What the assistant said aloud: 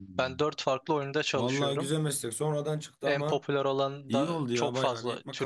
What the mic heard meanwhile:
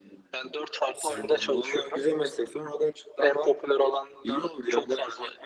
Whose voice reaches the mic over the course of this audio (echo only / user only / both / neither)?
both